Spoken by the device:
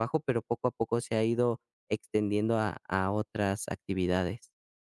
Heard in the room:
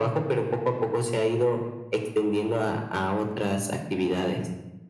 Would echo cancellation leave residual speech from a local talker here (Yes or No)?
No